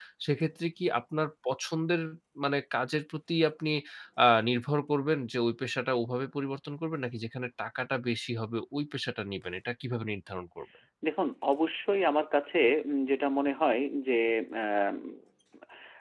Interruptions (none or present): none